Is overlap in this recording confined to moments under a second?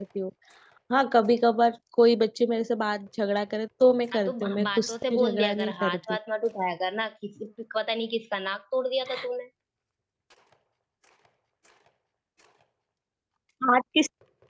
No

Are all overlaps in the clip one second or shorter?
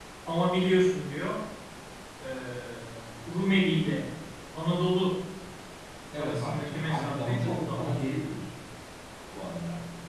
No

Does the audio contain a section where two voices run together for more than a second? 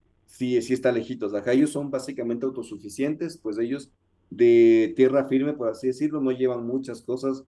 No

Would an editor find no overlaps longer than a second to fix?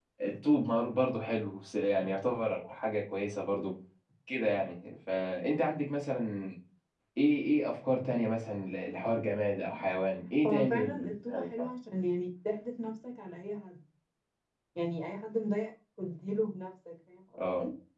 No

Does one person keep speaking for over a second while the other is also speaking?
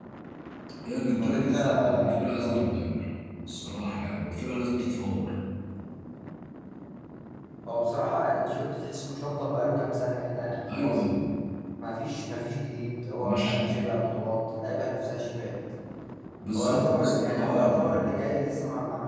Yes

